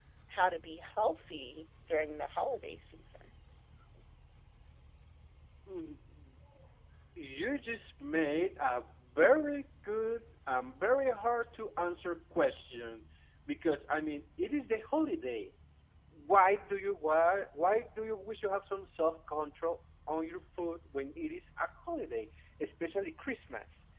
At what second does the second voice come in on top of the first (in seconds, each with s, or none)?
none